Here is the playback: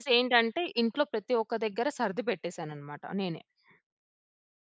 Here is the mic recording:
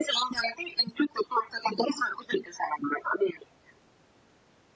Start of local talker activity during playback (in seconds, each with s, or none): none